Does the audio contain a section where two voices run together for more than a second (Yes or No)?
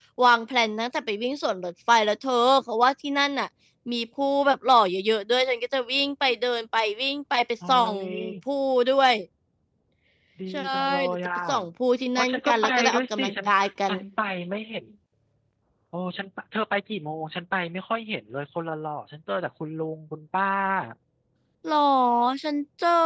Yes